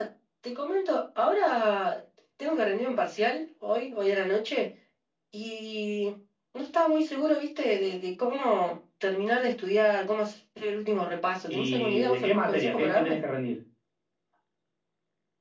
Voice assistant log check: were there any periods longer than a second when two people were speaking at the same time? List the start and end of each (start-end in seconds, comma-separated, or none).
11.5-13.2